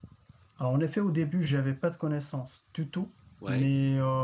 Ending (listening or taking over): listening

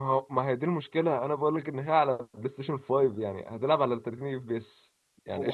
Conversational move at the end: taking over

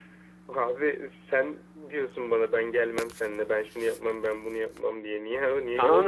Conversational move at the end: taking over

